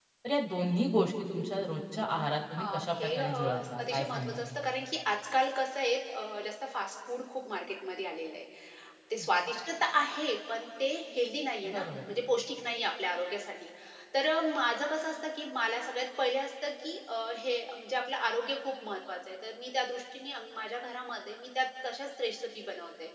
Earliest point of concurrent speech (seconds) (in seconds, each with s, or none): 2.6 s